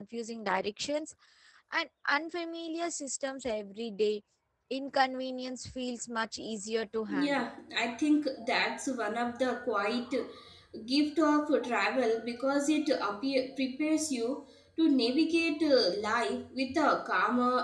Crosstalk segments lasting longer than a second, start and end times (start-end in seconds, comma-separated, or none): none